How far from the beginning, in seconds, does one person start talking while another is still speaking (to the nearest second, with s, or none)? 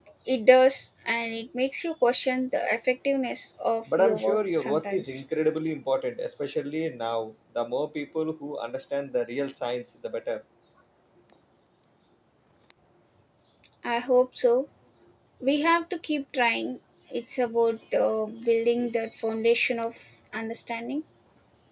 4 s